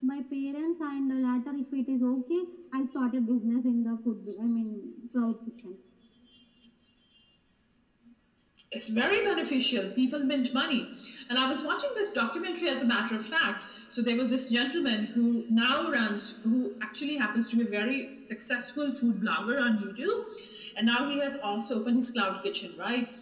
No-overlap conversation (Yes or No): Yes